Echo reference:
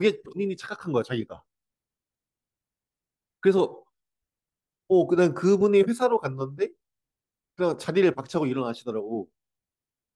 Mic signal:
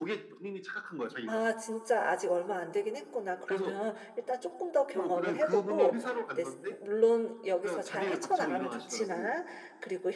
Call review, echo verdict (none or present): present